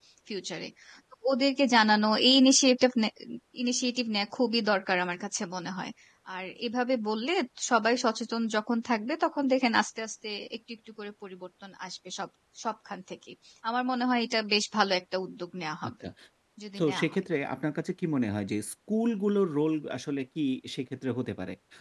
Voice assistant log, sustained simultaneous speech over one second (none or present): none